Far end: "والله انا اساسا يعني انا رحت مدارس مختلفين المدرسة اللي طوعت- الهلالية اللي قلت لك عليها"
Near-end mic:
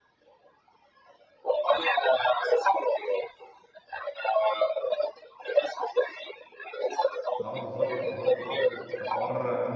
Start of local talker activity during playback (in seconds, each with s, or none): 7.4 s